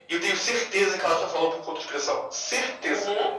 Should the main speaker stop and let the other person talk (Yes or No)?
Yes